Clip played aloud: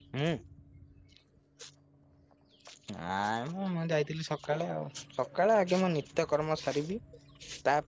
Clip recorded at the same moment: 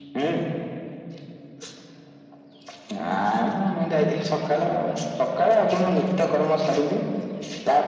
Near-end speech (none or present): none